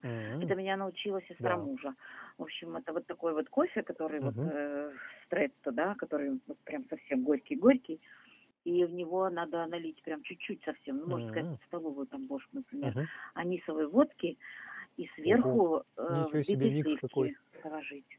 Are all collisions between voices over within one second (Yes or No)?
No